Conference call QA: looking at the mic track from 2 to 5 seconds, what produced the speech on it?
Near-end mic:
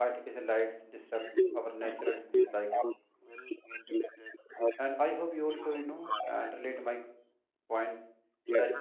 both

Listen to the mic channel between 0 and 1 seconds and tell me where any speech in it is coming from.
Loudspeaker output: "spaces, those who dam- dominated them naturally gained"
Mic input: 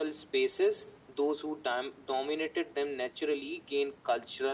echo only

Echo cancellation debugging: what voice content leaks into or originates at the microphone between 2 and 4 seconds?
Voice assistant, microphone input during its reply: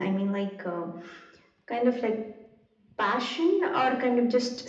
echo only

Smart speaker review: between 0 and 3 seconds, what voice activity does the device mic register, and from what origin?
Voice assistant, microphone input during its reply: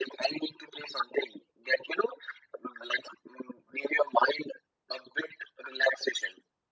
echo only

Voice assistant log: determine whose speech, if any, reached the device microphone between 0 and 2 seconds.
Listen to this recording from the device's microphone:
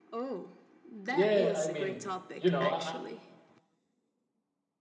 both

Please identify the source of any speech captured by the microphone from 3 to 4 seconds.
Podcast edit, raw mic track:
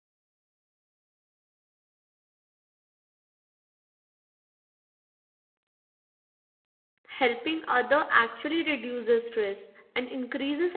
neither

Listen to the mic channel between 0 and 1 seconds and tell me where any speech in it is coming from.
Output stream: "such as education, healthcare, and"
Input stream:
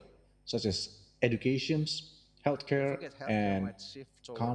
echo only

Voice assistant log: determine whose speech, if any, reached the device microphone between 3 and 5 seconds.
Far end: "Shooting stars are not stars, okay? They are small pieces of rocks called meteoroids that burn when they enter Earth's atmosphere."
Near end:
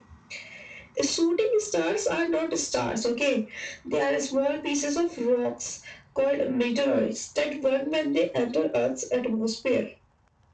echo only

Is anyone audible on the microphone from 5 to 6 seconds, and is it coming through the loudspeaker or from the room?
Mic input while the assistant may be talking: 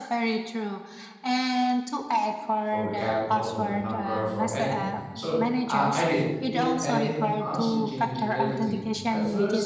both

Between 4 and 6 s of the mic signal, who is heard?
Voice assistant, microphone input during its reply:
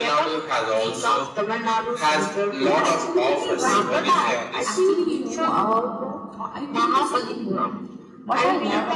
both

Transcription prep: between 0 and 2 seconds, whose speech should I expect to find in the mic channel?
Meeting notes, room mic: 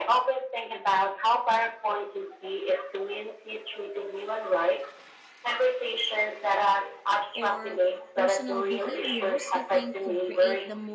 echo only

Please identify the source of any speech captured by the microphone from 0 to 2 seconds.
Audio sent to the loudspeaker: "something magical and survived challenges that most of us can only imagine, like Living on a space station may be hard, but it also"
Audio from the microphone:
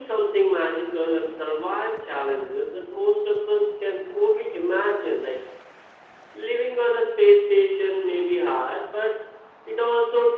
echo only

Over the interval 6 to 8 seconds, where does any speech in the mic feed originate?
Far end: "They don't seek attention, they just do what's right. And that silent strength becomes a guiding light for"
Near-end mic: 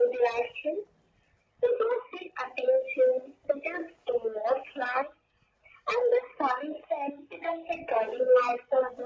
echo only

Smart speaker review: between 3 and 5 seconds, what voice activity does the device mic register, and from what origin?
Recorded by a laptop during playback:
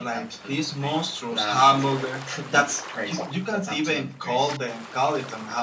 echo only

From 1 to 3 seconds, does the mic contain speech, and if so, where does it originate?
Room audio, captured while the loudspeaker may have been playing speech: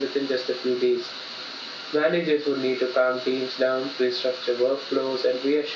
echo only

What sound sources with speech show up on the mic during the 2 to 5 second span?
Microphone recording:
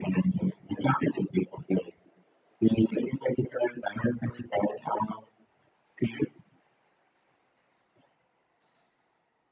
echo only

